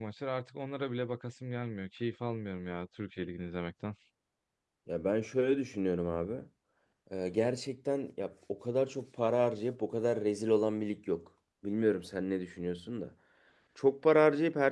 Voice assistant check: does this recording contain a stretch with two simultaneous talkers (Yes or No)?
No